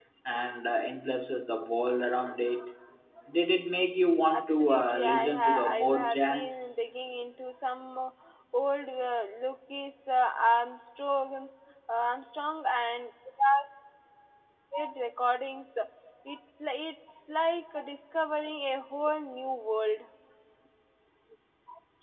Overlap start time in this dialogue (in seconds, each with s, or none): 4.3 s